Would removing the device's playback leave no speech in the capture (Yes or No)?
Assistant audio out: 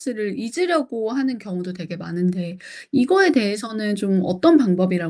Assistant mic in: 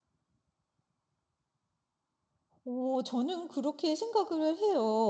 No